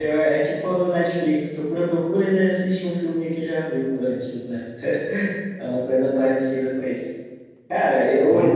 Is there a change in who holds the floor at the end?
No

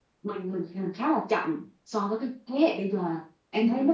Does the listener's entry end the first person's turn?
No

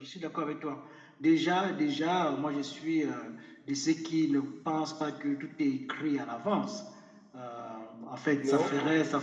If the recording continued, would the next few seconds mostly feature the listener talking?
No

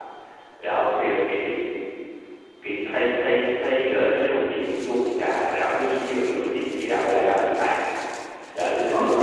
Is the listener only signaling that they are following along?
No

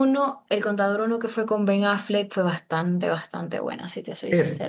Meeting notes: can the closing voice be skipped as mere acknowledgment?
No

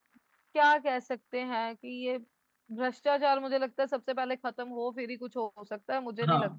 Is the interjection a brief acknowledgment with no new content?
No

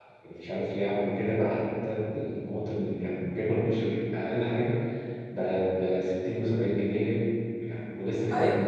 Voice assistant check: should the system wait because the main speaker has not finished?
No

